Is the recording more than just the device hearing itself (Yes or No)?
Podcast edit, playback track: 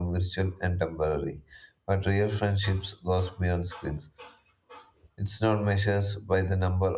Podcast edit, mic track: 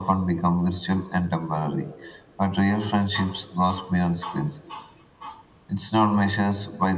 No